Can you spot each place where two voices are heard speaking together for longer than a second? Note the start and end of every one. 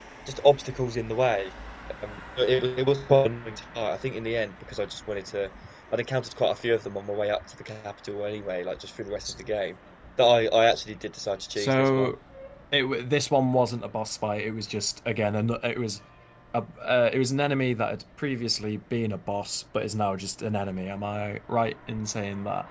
none

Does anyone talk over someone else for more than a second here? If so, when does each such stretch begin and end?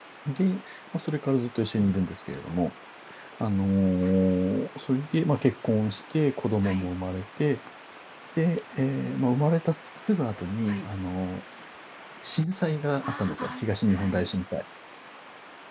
13.0-14.3

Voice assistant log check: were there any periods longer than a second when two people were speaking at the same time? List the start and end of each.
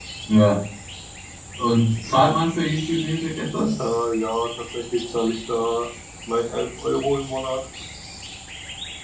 none

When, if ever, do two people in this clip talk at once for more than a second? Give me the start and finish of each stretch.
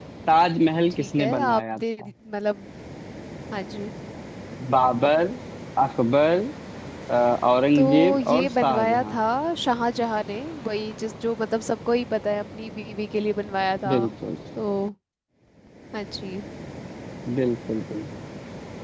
0.9-2.1, 7.8-9.2

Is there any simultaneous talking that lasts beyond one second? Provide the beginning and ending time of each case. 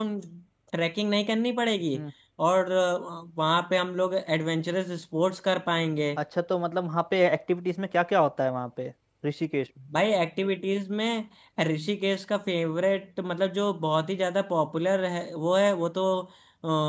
none

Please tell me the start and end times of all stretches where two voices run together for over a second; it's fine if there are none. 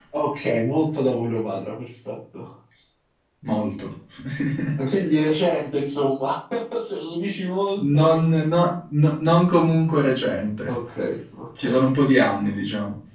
none

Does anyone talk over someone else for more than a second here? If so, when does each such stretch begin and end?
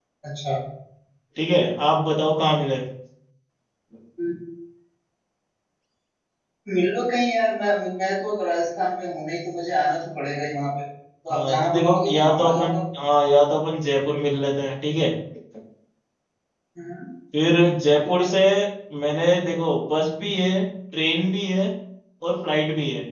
11.3-12.8

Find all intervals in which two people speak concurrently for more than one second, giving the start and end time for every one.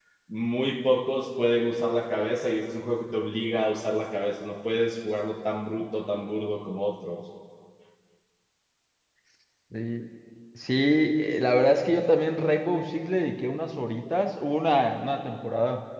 none

